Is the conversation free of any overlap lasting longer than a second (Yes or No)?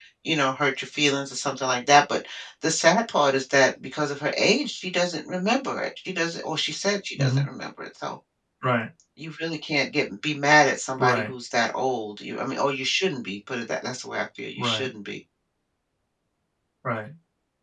Yes